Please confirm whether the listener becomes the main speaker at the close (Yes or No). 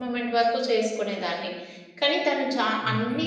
No